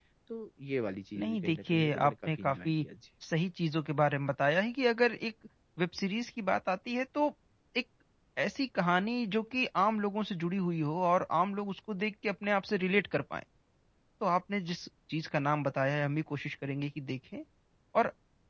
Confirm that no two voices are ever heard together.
No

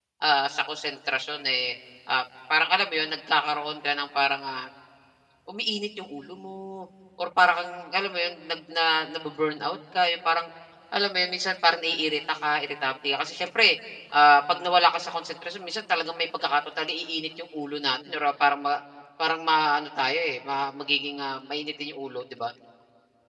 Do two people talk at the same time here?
No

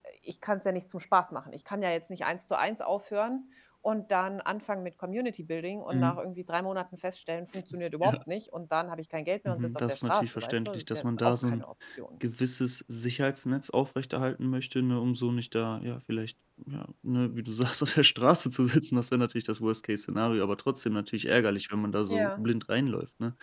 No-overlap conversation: No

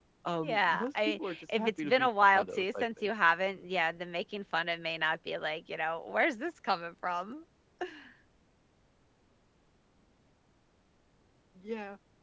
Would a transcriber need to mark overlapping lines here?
Yes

